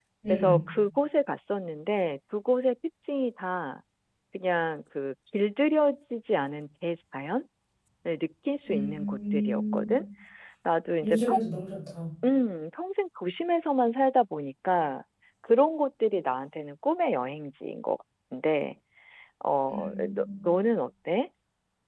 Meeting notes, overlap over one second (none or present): present